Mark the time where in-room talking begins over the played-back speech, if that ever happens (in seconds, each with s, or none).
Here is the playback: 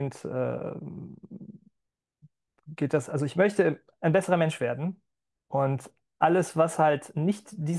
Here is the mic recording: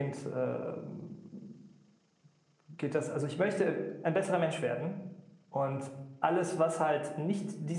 none